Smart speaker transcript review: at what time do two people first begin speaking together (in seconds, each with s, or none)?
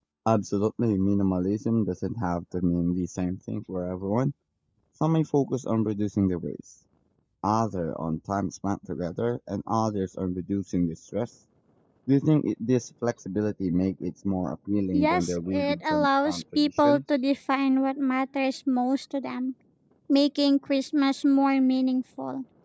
14.9 s